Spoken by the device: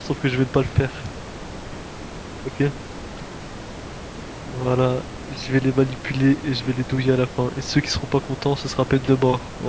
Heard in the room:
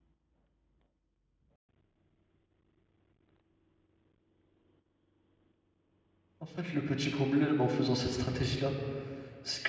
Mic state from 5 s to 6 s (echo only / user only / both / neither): neither